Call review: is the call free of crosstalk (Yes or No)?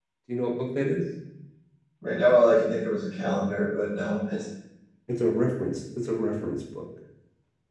Yes